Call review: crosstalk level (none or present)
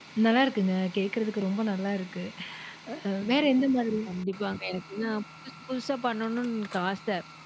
none